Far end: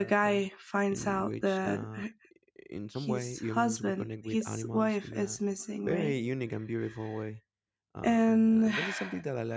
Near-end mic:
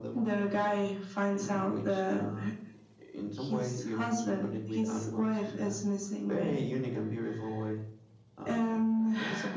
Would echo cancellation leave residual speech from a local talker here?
No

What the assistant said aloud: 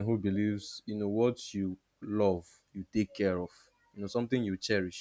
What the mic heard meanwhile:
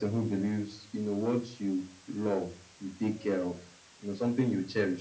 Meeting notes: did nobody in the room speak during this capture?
Yes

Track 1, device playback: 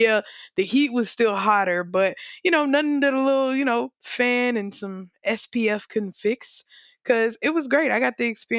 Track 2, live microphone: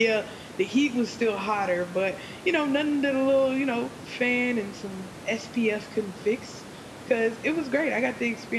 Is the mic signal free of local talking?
Yes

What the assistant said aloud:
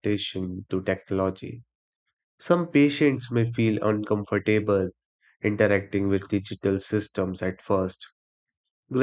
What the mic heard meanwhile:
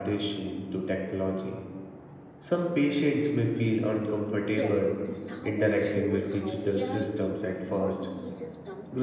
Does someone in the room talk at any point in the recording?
Yes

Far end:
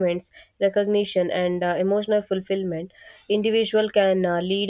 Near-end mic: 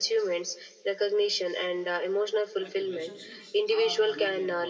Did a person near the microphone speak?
Yes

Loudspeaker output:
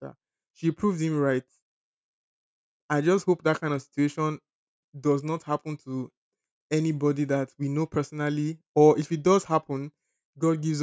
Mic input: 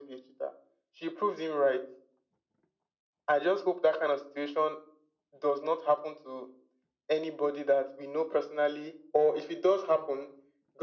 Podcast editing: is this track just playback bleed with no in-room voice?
Yes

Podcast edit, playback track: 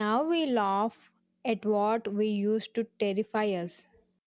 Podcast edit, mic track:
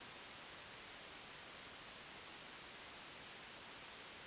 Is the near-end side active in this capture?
No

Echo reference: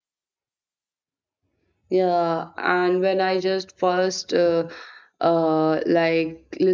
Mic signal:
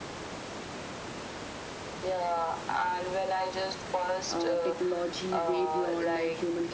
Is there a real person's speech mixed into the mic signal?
Yes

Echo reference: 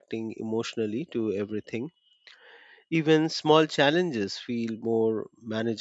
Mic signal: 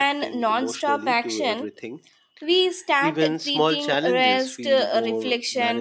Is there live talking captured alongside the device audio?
Yes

